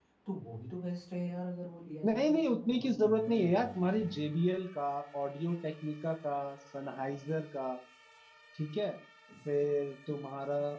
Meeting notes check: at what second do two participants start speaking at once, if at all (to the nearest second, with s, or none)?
2 s